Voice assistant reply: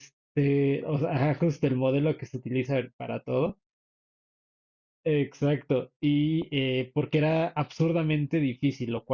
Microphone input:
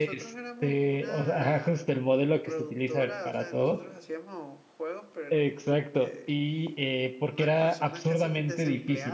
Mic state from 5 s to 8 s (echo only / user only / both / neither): both